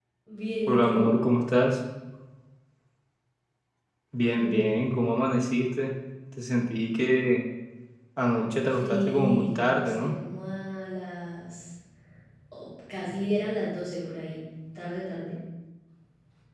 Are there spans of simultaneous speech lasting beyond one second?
Yes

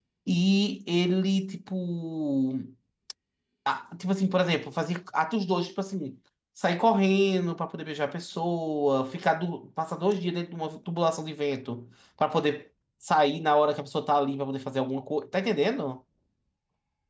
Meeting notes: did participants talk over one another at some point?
No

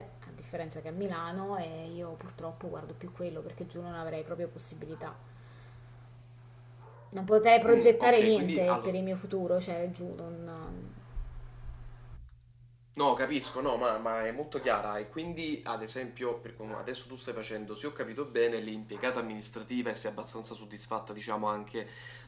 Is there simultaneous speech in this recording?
Yes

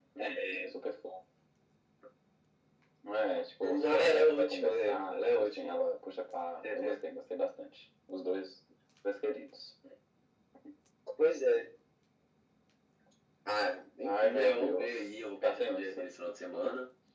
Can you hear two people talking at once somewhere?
Yes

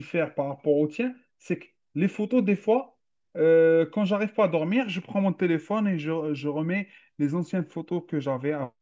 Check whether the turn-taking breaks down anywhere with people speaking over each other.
No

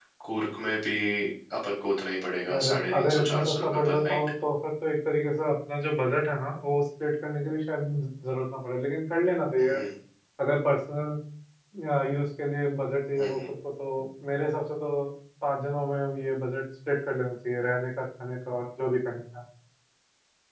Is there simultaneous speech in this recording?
Yes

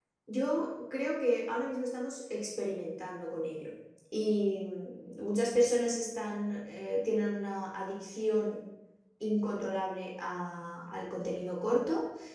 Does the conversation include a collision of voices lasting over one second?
No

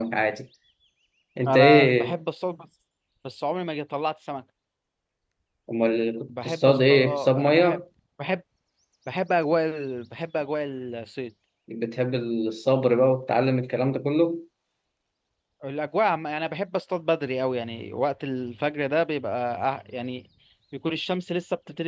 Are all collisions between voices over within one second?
No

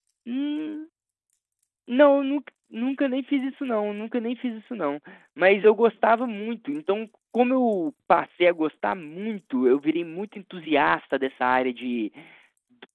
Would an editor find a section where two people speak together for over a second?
No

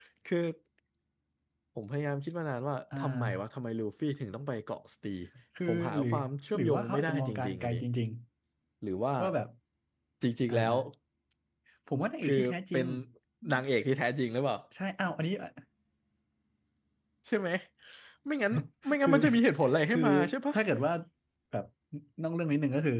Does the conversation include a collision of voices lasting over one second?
Yes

